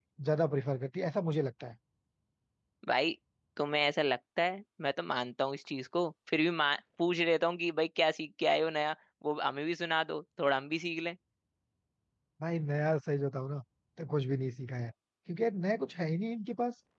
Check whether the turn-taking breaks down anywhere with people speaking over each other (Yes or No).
No